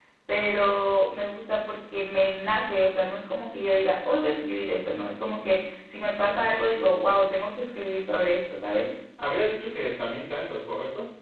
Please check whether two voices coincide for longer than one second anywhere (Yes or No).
No